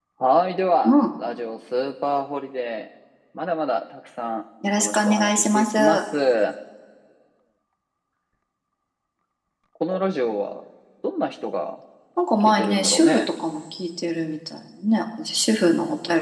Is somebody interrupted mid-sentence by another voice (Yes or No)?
Yes